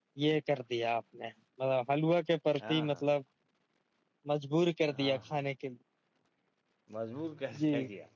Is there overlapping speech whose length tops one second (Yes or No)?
No